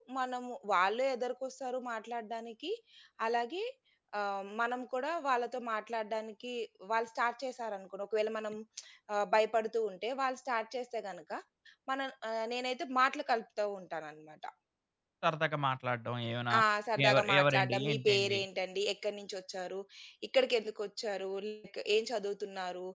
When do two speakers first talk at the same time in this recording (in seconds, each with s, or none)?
17.1 s